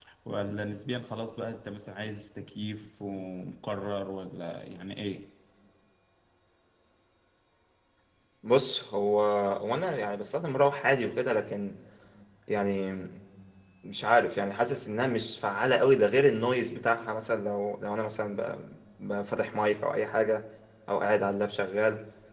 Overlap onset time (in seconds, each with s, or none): none